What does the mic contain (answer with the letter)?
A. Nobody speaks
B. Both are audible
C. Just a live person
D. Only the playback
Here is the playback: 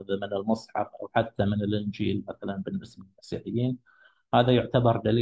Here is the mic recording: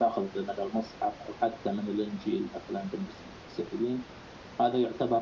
D